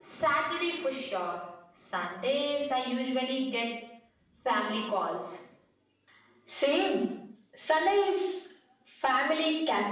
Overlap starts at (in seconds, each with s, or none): none